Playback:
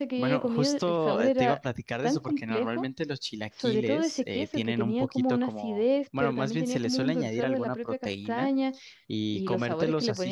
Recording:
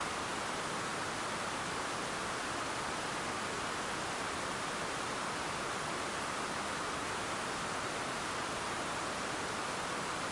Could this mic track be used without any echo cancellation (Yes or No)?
Yes